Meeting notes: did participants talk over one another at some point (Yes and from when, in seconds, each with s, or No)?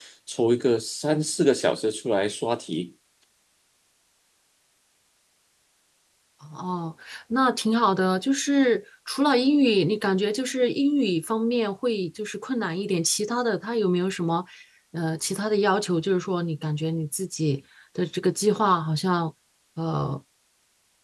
No